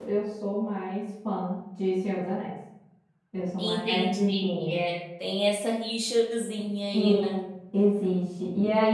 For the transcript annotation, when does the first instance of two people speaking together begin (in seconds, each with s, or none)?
3.6 s